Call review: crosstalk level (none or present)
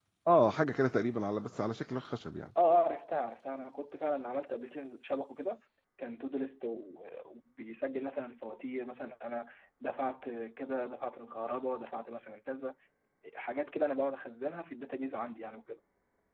none